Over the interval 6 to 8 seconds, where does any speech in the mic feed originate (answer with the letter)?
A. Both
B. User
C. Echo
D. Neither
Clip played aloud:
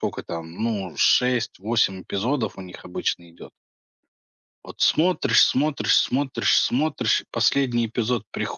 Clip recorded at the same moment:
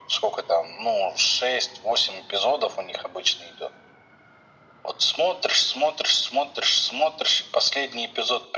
C